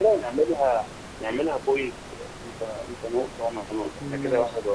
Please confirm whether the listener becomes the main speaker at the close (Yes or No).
Yes